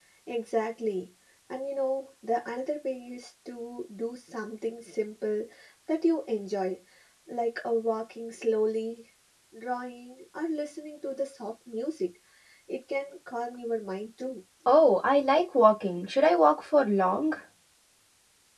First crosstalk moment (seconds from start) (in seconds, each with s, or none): none